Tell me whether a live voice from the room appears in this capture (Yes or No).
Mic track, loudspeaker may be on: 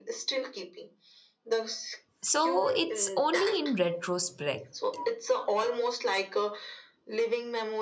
Yes